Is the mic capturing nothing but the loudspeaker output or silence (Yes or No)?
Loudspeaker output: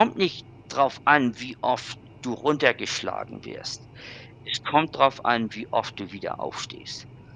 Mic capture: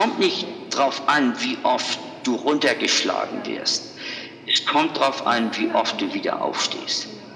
No